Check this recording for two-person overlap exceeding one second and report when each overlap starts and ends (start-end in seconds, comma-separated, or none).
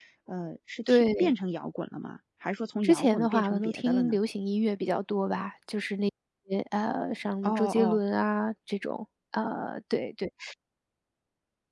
2.8-4.2